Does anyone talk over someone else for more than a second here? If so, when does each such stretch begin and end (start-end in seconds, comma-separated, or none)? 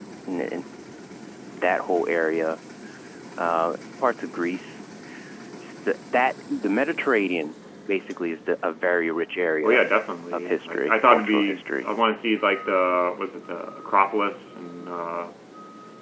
10.3-11.9